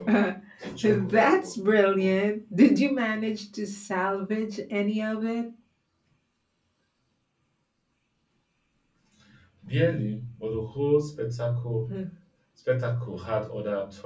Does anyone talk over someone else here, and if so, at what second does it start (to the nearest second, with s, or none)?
1 s